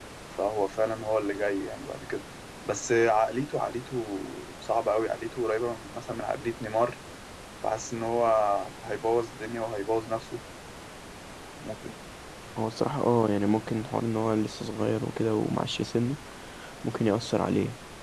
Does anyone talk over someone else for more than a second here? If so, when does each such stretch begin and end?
none

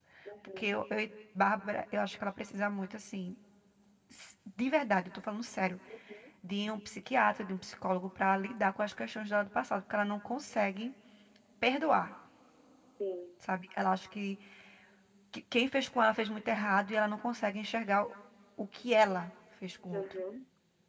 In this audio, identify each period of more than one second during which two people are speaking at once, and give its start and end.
none

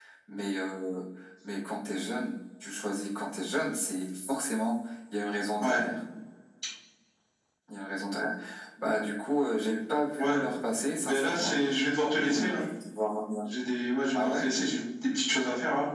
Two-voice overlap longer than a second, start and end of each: none

